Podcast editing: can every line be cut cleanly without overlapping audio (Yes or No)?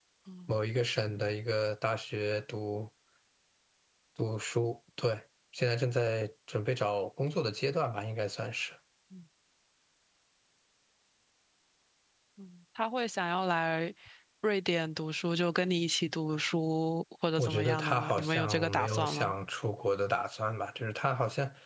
No